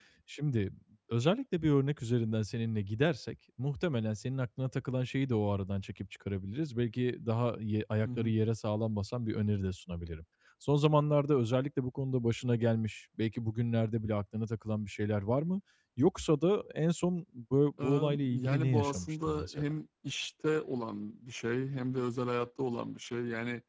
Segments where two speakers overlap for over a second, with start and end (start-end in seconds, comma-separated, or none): 17.8-19.6